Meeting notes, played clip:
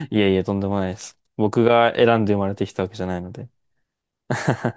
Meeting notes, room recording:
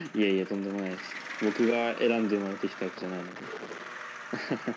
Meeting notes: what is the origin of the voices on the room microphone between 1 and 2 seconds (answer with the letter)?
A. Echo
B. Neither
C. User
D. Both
A